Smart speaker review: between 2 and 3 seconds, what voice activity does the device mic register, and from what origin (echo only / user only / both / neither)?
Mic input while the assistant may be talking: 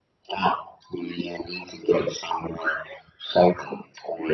echo only